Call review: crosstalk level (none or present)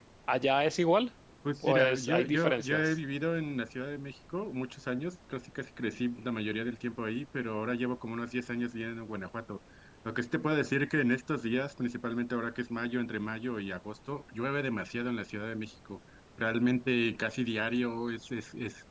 present